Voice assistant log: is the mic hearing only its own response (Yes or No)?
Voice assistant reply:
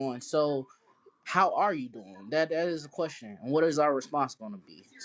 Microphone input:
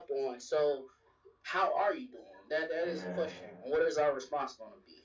No